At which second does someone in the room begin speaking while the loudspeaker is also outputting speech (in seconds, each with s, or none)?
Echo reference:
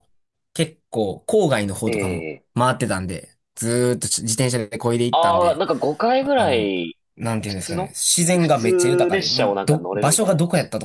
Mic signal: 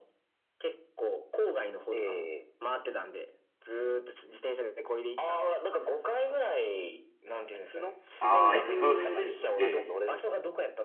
8.2 s